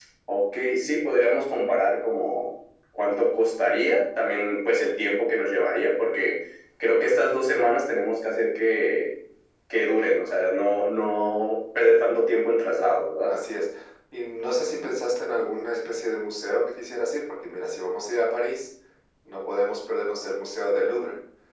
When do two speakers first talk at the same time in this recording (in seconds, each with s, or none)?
none